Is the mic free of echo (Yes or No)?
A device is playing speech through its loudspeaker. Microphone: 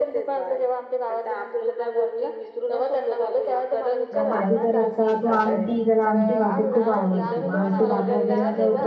No